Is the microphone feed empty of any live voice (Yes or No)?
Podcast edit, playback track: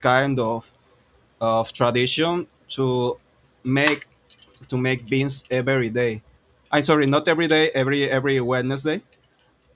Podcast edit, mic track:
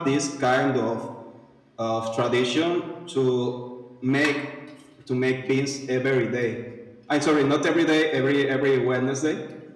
Yes